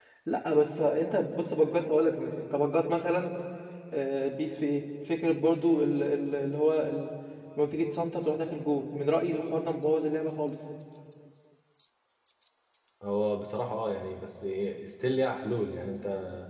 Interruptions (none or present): none